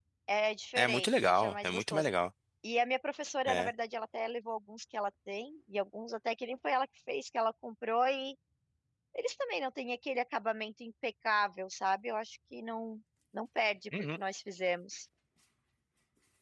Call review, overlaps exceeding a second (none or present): present